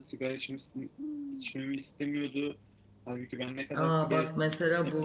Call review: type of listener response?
taking over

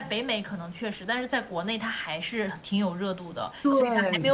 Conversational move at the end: listening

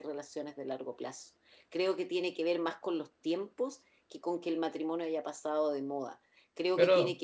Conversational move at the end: listening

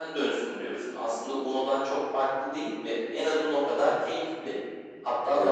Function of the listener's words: listening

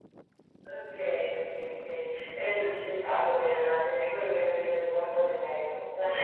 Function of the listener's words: taking over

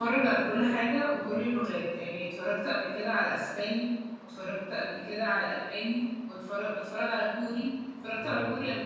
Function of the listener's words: taking over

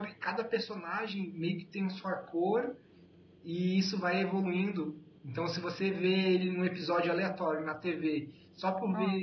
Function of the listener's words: listening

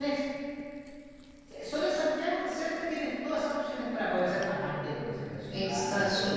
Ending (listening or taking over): taking over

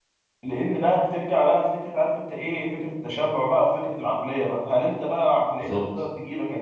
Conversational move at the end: listening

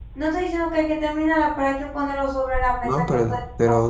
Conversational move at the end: taking over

